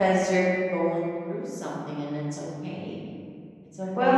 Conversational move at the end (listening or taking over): taking over